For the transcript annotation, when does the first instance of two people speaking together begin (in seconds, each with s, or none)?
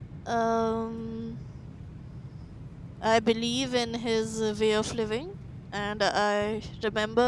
none